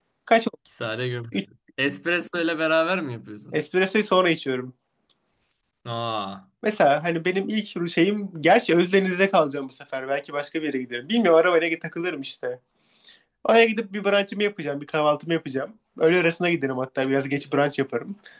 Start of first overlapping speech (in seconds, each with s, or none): none